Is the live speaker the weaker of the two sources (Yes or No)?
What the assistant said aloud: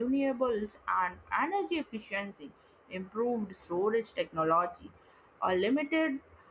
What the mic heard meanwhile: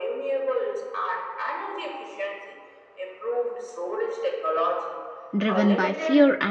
No